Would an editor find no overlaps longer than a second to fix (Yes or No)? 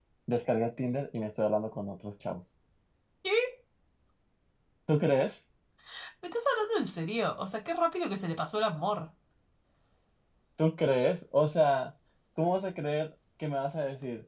Yes